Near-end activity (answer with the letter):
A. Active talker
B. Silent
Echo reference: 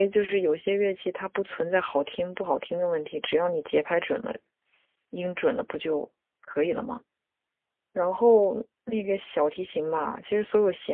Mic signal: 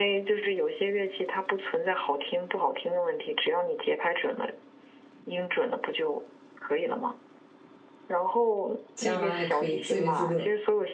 A